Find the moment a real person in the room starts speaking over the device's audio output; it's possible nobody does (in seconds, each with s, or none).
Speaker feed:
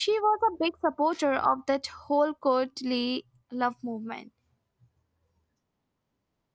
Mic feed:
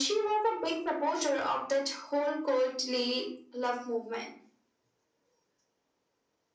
none